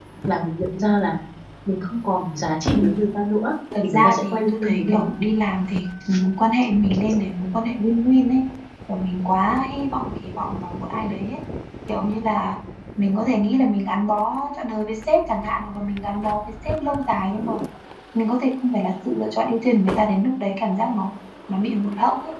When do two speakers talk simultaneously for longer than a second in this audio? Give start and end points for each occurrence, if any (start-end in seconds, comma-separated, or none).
3.8-5.1